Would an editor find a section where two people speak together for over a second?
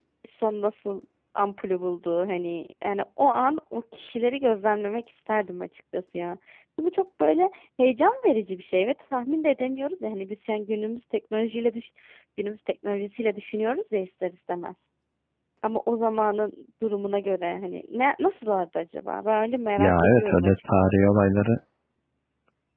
Yes, from 19.8 s

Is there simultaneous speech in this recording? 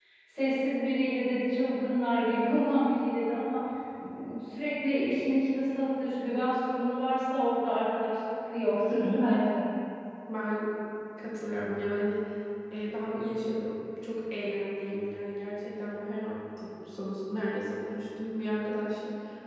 No

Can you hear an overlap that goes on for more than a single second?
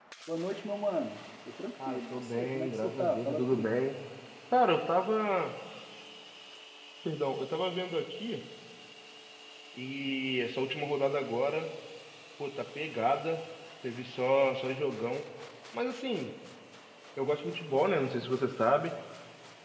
Yes, from 1.8 s

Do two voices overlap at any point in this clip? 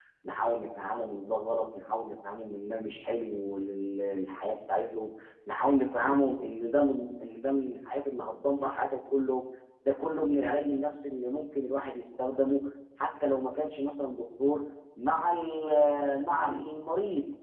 No

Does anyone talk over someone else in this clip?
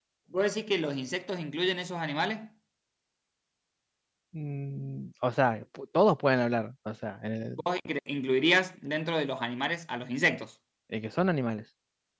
No

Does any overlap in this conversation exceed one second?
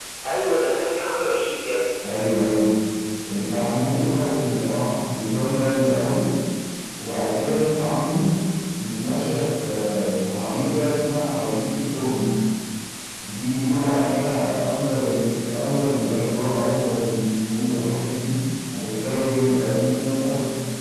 No

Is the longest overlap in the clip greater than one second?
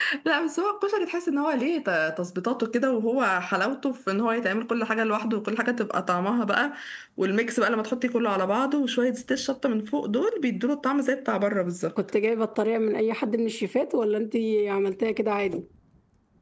No

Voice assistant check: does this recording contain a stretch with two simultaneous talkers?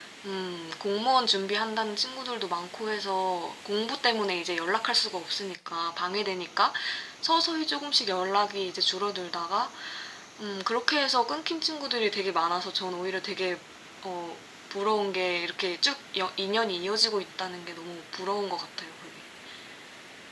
No

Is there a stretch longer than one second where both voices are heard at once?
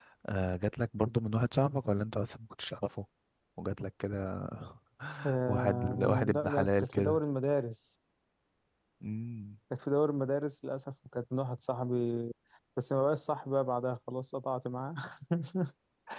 Yes, from 5.5 s

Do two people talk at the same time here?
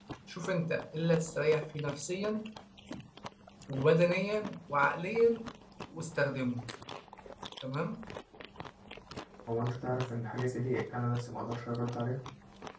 No

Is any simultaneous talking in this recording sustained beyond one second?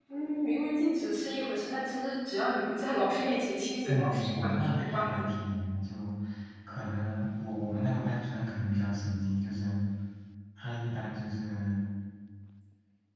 Yes, from 3.9 s

